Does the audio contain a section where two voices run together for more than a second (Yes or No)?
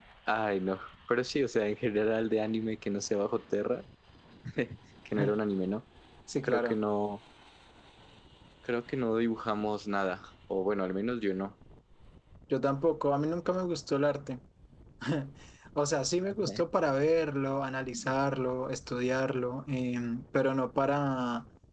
No